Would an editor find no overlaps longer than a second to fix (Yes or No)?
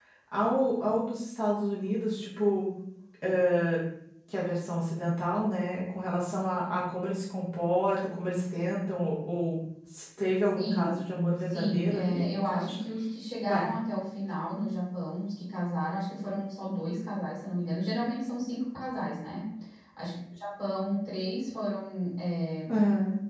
No